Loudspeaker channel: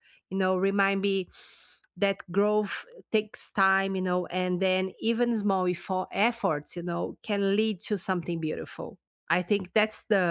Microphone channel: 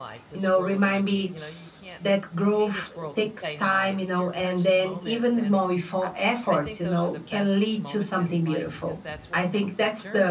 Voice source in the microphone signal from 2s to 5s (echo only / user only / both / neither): both